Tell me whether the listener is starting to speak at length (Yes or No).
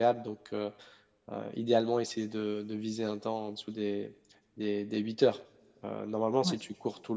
No